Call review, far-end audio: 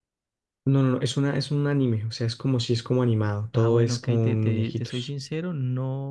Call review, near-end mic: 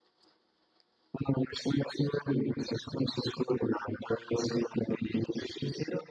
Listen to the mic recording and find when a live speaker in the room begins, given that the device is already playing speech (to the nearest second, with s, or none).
none